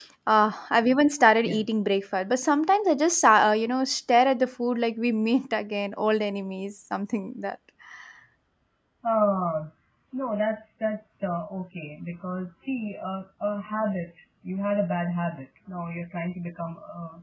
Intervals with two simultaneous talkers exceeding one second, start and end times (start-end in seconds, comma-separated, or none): none